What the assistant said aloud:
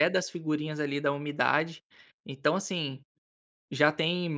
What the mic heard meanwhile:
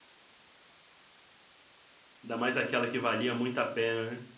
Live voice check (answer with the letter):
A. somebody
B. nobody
A